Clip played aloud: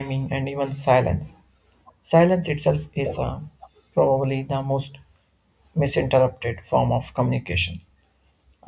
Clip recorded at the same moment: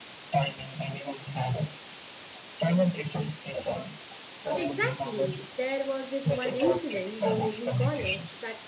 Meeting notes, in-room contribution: present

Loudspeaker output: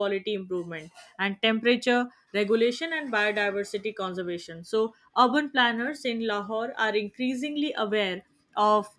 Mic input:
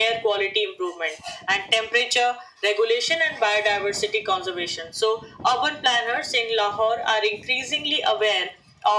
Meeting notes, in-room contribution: none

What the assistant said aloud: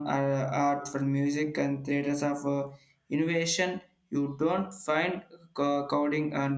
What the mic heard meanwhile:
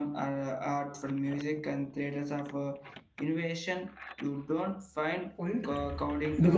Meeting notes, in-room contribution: present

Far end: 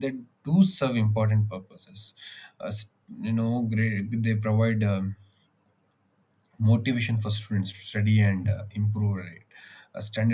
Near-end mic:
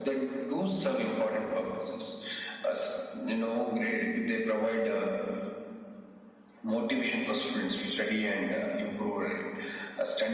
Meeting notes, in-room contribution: none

